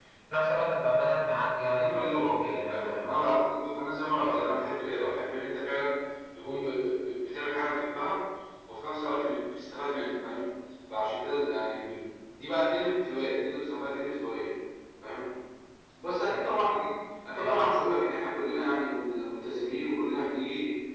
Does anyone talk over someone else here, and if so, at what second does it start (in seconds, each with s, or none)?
1.6 s